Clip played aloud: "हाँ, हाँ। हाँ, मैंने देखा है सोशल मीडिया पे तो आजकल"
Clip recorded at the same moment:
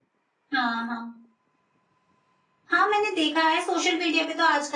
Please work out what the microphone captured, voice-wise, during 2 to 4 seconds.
echo only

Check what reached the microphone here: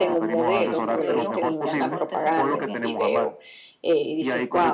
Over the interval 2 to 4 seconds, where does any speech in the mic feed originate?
both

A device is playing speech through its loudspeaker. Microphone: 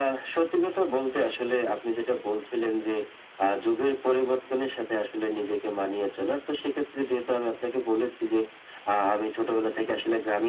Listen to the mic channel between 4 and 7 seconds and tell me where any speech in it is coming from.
echo only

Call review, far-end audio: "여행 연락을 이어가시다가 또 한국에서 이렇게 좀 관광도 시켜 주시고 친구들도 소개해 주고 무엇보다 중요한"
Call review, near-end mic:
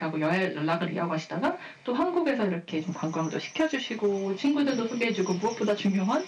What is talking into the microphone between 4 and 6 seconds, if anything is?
echo only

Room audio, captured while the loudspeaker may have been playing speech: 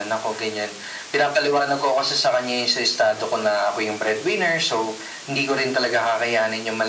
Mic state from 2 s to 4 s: echo only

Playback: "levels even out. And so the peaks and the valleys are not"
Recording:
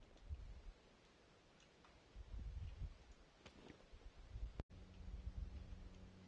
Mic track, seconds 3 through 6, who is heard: neither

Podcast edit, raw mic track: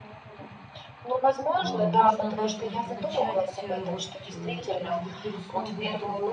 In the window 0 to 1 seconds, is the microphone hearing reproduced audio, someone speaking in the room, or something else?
echo only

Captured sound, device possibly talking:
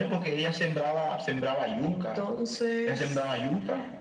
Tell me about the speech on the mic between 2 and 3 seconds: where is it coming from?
echo only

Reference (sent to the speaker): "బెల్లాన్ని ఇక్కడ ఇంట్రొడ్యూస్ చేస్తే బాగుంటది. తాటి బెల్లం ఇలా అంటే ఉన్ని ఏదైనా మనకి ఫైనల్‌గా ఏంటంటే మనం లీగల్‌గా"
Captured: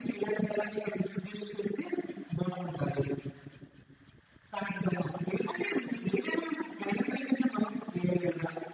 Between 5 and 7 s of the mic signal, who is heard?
echo only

